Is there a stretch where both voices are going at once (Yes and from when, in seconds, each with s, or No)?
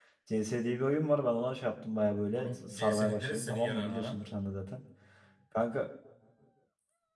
Yes, from 2.3 s